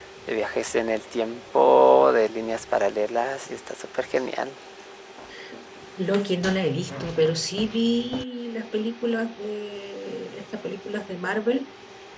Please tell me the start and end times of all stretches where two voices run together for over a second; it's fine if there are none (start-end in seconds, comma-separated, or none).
none